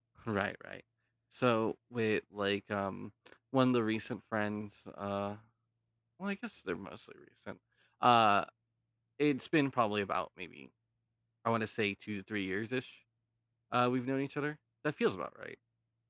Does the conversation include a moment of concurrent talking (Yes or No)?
No